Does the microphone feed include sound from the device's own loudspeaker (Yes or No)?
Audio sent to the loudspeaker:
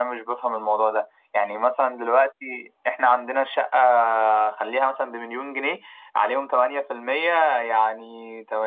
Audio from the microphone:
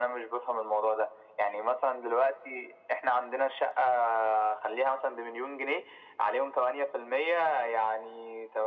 Yes